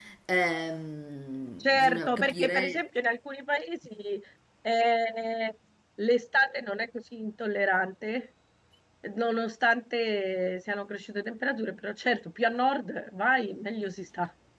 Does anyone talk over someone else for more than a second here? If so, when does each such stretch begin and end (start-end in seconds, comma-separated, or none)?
1.6-2.8